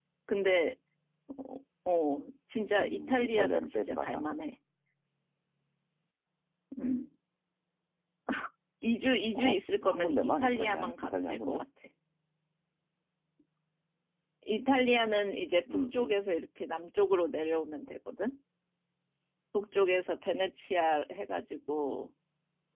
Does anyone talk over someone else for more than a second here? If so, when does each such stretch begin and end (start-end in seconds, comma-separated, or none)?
2.8-4.2, 9.3-11.6